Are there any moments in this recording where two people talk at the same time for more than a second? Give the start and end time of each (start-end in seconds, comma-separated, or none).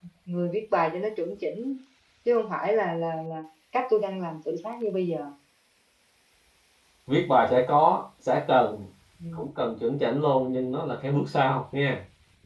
none